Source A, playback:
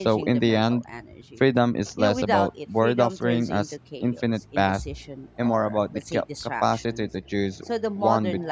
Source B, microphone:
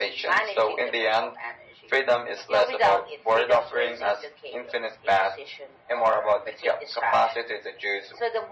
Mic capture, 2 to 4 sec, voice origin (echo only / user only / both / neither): echo only